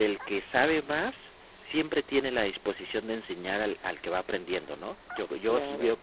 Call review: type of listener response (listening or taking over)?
taking over